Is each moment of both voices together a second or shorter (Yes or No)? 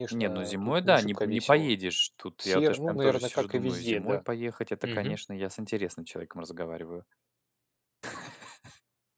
No